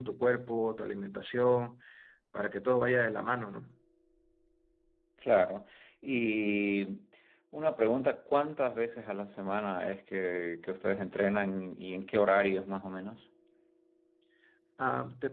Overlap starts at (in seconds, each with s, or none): none